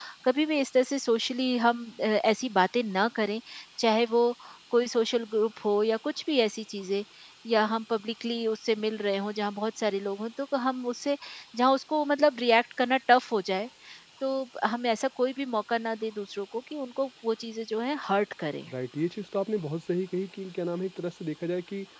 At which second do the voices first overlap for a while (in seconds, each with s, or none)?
none